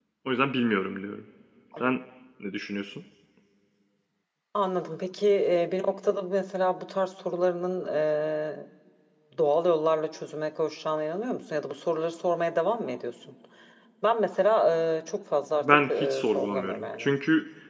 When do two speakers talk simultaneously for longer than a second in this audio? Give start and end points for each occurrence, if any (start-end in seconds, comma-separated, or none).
15.5-17.1